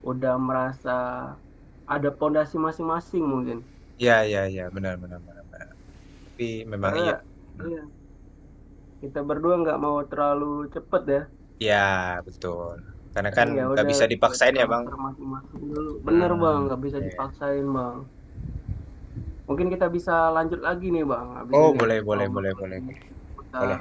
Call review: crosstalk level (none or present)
present